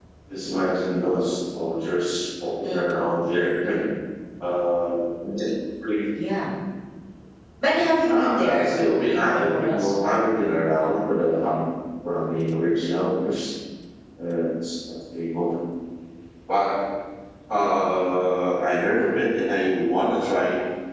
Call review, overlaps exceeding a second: present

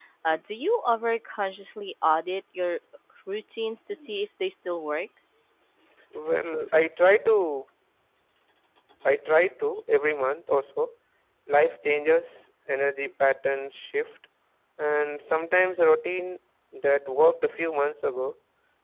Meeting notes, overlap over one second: none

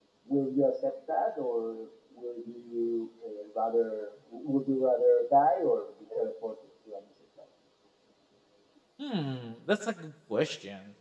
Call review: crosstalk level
none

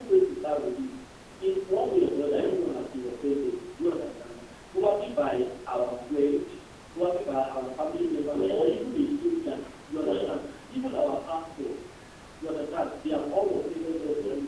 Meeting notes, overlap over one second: none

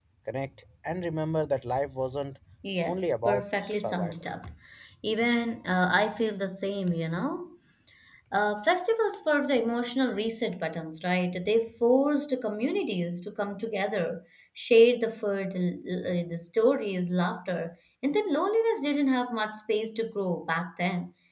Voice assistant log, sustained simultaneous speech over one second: present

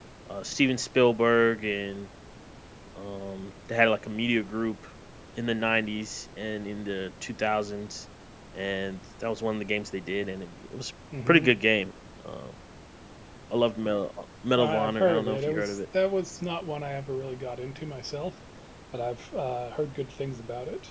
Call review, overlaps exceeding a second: present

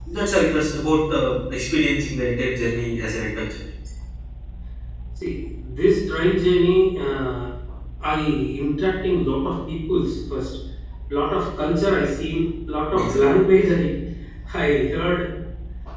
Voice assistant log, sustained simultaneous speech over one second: none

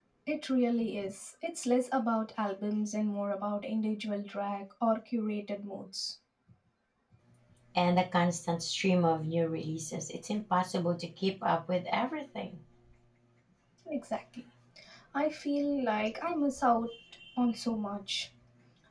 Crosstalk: none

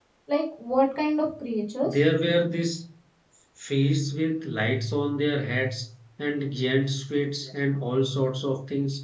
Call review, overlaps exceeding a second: none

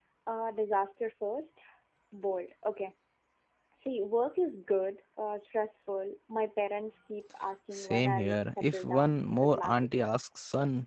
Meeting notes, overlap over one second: present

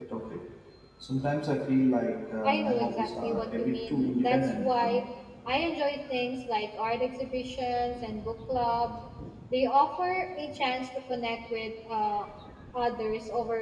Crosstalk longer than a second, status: present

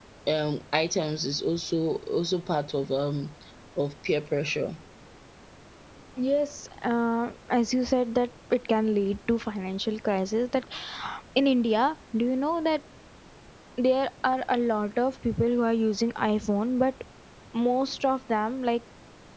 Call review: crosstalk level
none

